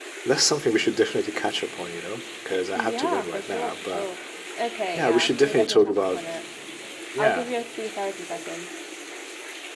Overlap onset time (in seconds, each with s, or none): 2.7 s